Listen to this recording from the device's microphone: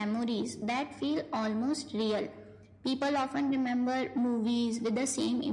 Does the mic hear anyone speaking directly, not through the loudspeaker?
No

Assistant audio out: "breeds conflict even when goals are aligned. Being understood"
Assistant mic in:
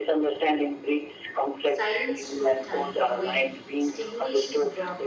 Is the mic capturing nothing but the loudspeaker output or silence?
No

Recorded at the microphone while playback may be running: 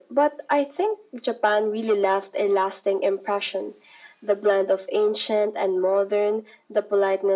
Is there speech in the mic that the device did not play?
No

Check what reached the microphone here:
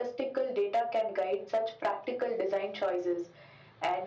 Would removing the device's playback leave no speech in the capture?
Yes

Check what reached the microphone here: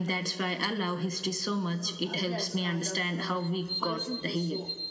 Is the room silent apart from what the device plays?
No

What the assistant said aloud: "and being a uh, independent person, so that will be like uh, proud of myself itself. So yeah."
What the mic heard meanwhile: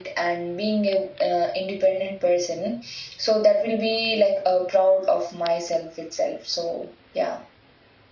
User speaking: No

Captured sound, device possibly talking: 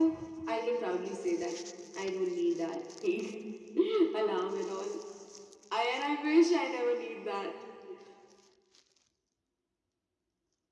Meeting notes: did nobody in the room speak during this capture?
Yes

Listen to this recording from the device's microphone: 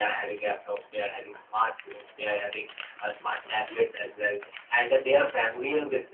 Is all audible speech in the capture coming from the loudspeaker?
Yes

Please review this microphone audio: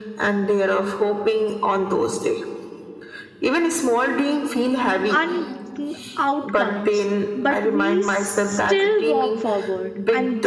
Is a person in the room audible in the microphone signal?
Yes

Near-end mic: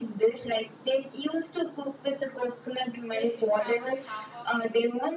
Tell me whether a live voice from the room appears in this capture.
Yes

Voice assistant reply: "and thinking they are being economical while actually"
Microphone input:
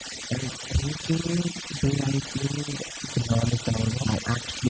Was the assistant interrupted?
No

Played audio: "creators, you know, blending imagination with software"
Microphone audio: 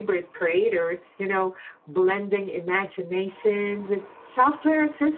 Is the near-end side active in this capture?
No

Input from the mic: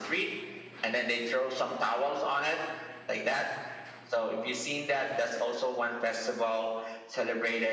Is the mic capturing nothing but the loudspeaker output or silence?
Yes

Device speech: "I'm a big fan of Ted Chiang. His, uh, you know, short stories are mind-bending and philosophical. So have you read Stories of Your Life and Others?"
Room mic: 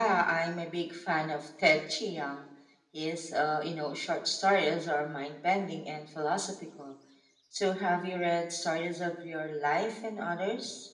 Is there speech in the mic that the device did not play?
No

